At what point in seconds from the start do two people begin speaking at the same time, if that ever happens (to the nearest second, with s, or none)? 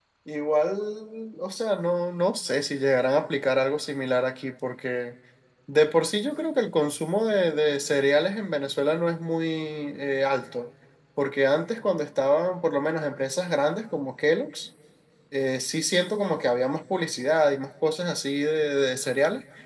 none